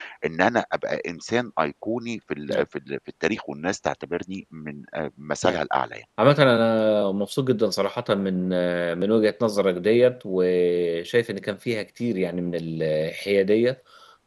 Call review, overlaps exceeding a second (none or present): none